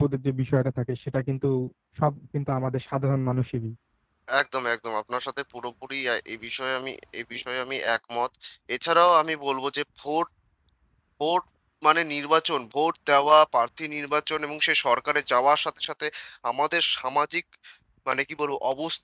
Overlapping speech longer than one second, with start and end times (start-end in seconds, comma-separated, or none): none